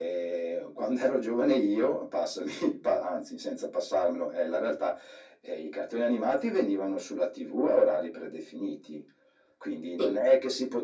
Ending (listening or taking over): listening